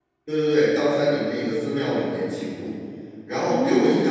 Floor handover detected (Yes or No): No